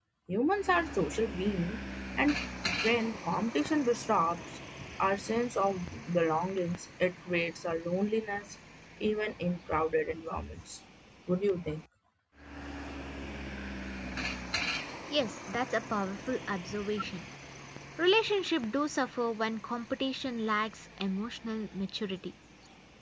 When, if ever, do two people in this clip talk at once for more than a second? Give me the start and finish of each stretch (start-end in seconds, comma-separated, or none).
none